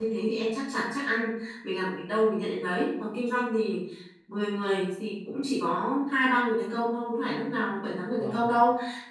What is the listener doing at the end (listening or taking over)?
listening